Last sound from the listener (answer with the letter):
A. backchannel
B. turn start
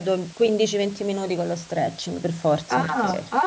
B